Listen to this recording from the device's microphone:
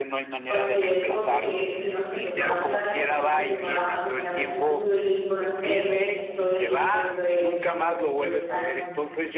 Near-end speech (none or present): present